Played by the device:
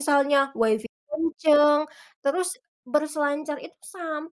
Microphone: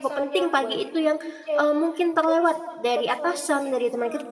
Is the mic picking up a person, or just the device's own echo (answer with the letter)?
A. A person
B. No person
A